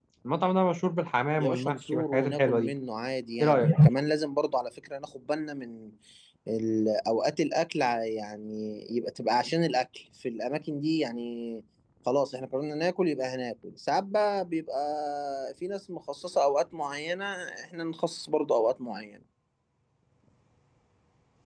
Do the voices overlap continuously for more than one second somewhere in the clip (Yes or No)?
Yes